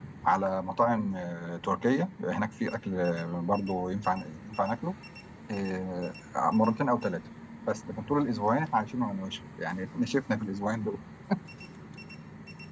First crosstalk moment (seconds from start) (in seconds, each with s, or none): none